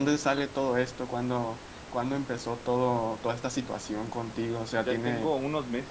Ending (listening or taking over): taking over